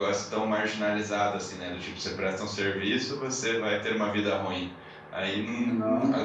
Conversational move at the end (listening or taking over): listening